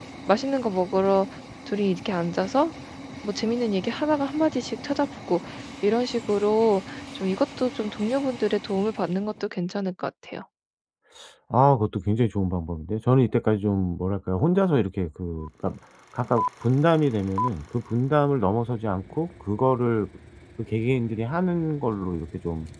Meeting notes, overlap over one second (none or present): none